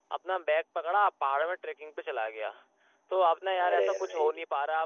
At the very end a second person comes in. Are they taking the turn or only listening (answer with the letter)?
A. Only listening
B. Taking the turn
A